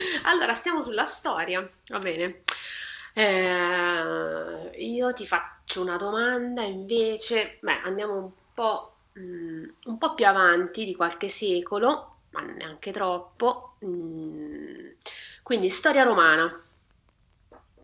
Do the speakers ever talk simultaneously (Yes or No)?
No